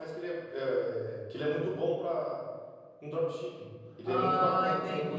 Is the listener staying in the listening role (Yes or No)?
No